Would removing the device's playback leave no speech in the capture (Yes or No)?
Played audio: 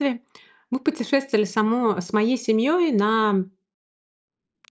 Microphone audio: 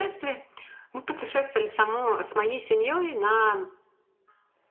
Yes